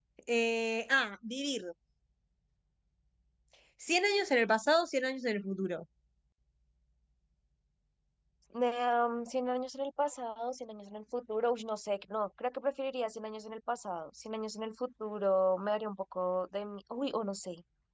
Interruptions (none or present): none